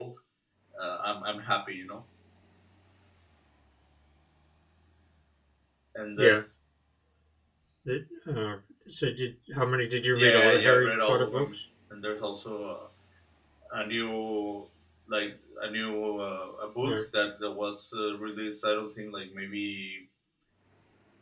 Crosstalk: present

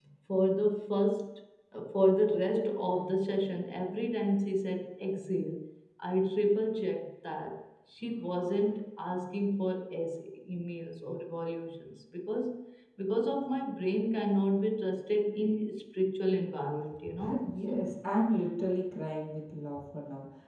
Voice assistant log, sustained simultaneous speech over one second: none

